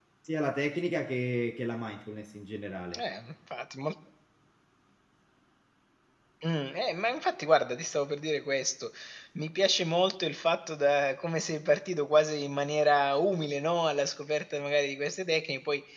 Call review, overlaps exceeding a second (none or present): none